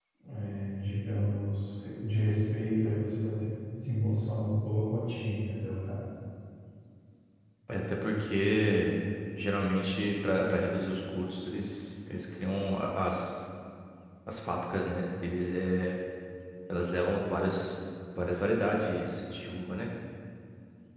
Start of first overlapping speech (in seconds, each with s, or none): none